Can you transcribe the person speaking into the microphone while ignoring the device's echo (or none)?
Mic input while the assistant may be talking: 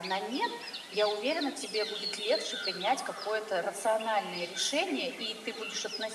none